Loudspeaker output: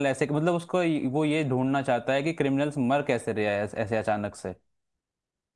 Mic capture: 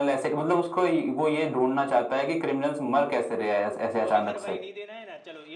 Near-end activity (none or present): present